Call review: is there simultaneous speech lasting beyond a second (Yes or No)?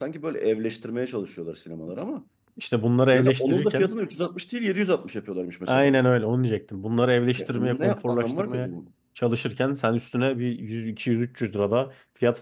Yes